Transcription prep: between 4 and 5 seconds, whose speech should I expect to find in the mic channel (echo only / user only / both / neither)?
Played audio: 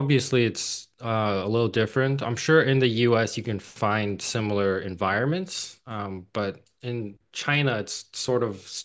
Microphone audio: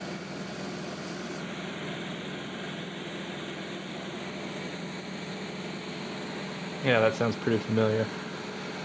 neither